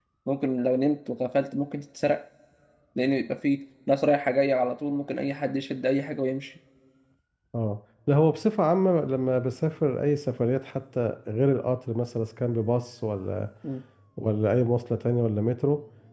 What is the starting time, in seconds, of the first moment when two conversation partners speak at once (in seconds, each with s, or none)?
none